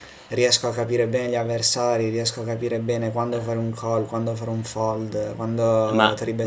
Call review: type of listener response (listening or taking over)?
taking over